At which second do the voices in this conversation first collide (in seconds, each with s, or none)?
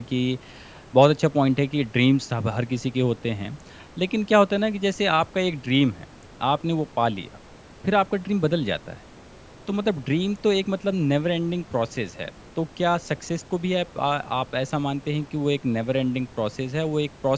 none